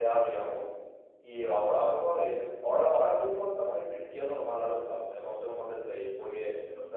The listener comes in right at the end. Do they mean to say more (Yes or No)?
No